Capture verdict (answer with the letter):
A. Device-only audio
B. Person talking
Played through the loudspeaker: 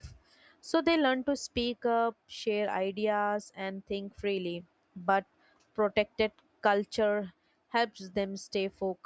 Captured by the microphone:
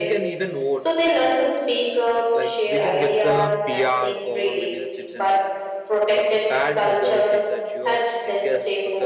B